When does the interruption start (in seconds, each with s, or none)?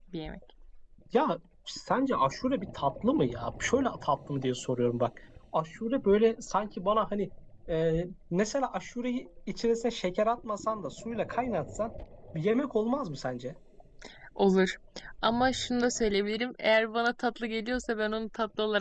none